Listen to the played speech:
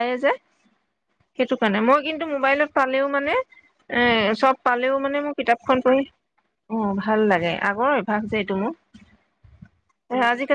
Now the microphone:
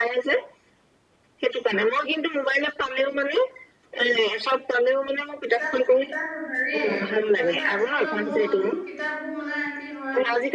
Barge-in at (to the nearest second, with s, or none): 6 s